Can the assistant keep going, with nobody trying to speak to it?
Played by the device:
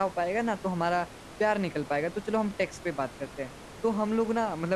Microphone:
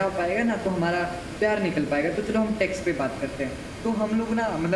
Yes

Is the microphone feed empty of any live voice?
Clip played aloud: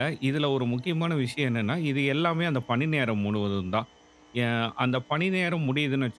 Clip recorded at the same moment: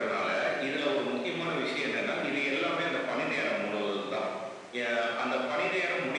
Yes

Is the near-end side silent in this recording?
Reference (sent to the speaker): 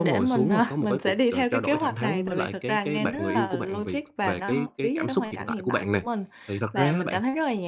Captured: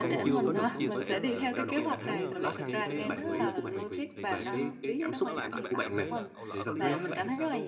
No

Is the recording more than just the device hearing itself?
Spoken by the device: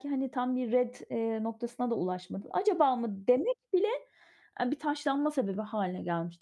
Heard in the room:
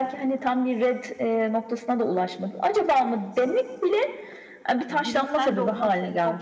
Yes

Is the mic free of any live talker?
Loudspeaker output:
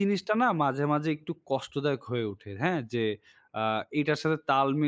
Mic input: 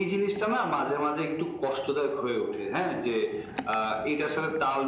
Yes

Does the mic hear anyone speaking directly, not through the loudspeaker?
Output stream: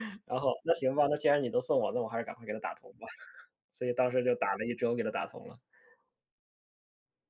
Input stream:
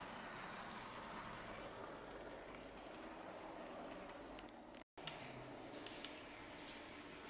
No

